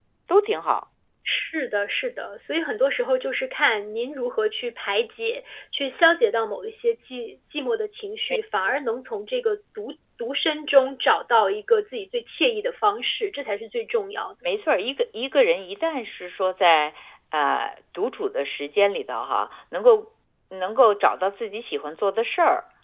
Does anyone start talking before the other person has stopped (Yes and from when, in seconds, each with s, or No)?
No